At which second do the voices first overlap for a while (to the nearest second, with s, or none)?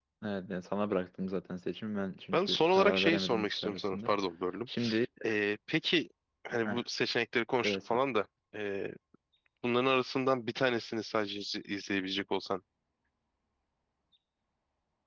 2 s